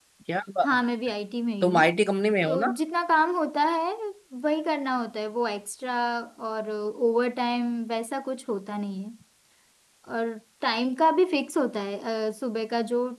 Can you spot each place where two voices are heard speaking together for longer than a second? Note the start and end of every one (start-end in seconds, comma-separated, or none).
none